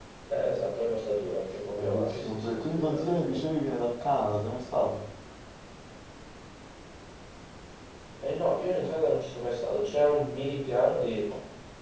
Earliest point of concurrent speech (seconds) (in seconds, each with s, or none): 1.8 s